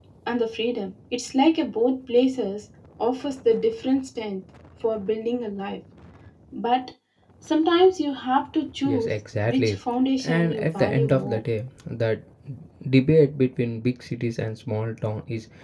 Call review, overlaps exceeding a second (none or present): present